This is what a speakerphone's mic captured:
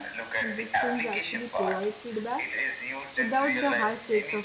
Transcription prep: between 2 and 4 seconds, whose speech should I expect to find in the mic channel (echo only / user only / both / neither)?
both